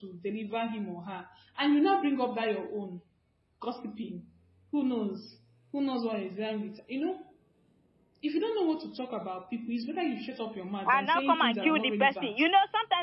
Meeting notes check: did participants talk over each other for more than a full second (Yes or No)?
Yes